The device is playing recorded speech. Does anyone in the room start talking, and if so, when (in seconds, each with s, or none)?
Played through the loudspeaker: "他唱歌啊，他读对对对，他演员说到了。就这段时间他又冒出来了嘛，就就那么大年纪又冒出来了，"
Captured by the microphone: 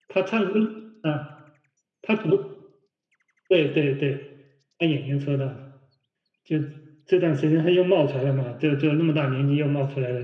none